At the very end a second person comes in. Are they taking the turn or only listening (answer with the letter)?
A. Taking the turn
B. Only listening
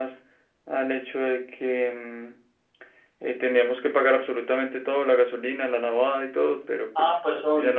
A